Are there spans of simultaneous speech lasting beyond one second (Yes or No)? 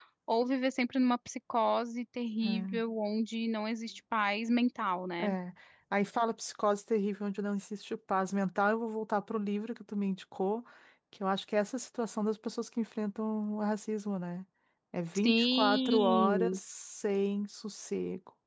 Yes